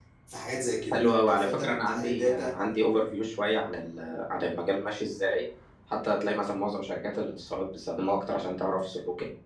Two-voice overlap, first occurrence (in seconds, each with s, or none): 0.9 s